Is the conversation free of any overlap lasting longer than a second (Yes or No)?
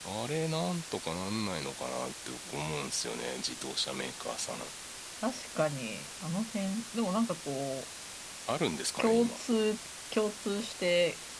Yes